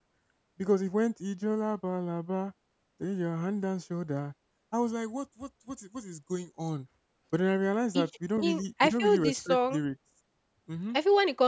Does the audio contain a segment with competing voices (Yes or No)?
Yes